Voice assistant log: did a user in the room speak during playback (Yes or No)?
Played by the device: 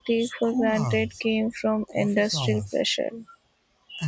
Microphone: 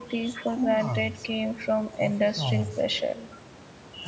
No